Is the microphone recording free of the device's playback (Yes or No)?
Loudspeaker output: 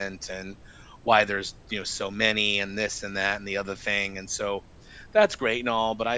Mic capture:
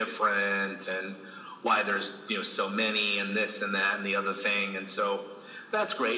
No